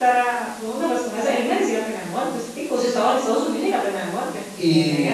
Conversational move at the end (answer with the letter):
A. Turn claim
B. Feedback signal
A